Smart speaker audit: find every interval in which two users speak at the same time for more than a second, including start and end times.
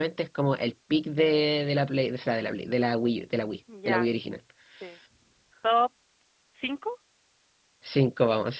none

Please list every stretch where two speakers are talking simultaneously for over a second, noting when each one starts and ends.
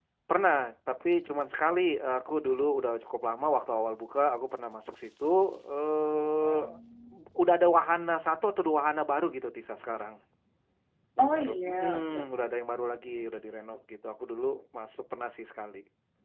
11.2-12.6

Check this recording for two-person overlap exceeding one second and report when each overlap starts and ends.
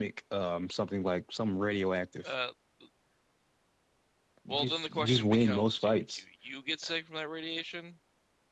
4.5-6.2

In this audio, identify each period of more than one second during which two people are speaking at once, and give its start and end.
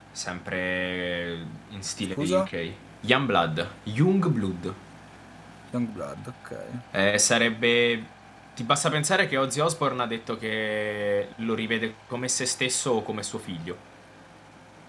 none

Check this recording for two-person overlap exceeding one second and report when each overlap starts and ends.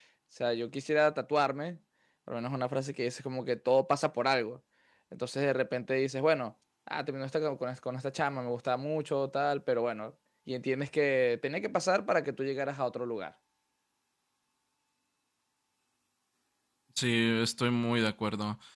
none

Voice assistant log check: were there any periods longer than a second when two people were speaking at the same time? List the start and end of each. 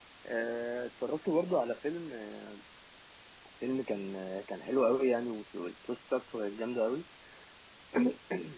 none

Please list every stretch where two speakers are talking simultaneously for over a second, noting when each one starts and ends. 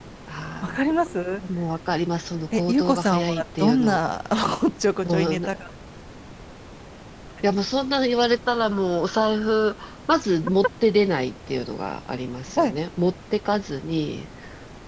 2.5-4.0

